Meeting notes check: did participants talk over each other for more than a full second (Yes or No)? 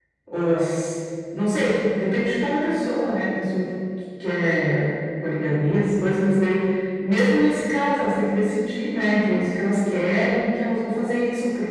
No